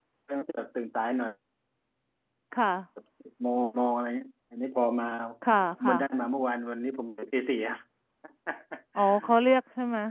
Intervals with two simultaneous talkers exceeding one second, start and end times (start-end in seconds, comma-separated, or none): none